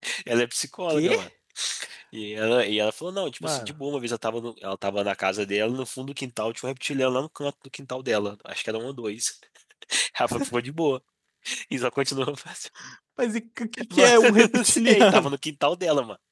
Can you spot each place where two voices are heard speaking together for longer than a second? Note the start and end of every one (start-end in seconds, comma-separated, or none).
13.9-15.3